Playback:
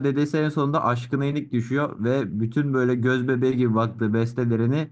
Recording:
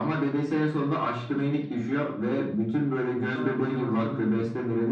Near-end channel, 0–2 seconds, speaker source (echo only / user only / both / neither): echo only